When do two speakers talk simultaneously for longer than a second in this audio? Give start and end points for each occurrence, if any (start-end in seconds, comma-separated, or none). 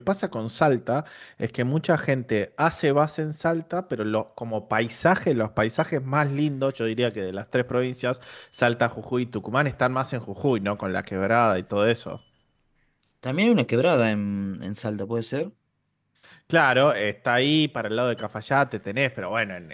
none